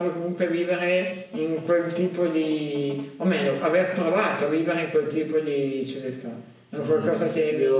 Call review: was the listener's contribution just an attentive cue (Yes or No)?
No